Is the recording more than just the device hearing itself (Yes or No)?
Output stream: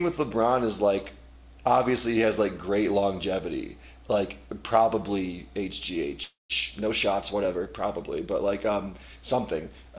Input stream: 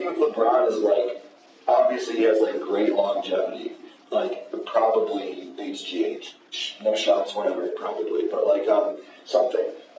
No